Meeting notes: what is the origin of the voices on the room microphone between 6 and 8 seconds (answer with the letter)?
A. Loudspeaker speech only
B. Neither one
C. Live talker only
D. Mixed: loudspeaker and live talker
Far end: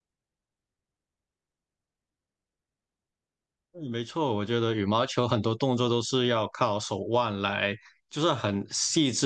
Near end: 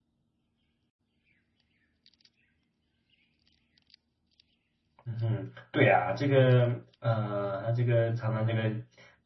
C